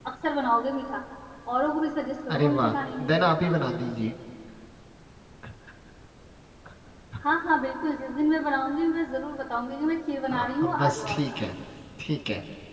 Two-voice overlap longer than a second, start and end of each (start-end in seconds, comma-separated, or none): 10.3-11.5